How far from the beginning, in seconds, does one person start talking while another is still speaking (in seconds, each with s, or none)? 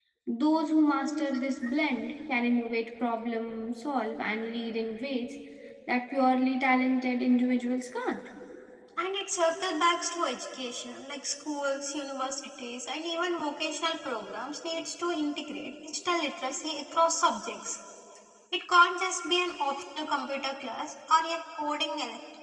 none